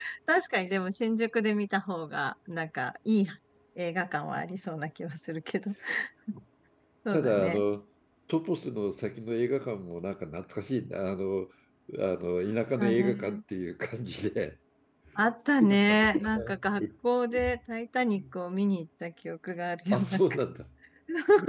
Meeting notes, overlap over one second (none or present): present